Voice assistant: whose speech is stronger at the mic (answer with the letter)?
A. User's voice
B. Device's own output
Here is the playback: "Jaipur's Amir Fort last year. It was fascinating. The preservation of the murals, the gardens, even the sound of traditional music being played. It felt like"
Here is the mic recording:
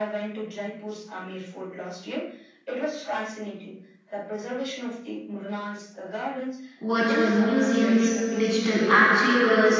A